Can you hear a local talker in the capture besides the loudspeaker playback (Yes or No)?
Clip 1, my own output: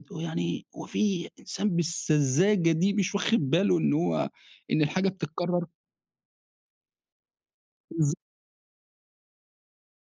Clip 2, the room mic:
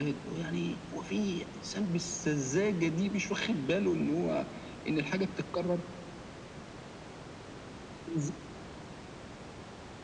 No